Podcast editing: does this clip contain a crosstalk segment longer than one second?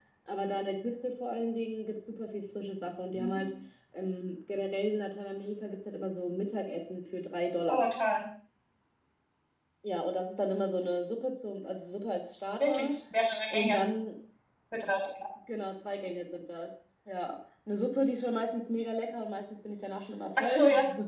No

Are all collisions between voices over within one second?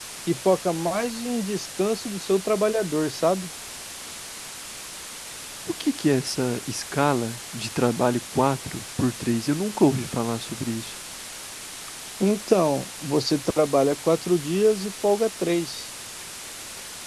Yes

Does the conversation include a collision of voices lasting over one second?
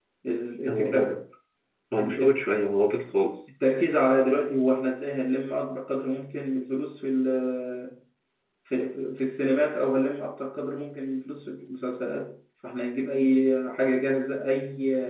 No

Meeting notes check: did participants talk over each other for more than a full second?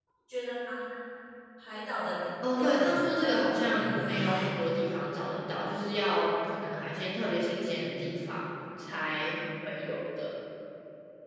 Yes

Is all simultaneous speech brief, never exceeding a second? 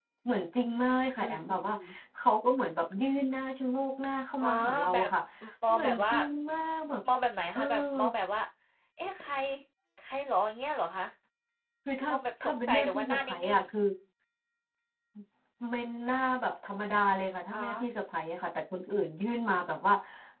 No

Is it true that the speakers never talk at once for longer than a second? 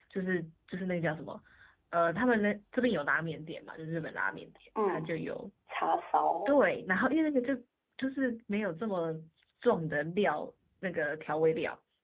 Yes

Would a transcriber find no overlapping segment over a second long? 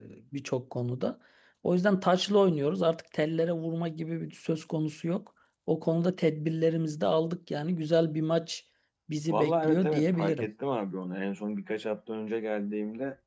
No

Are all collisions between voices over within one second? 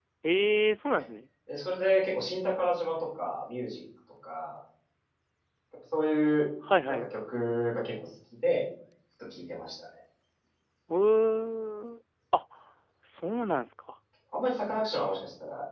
Yes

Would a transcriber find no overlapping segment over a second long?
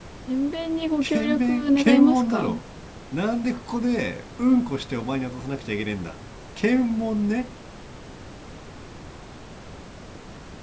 No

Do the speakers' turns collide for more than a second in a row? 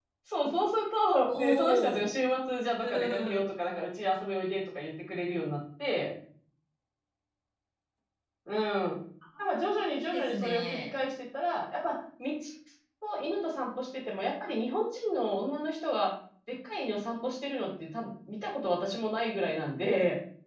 Yes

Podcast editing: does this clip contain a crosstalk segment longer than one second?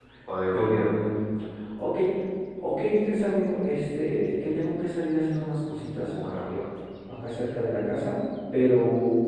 No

